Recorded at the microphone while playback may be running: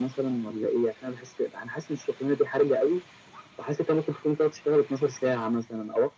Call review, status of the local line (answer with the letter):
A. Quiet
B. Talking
A